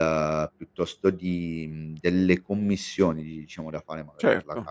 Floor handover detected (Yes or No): No